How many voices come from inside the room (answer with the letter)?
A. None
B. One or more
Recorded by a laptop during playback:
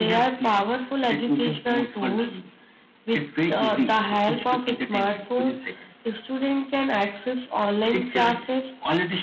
A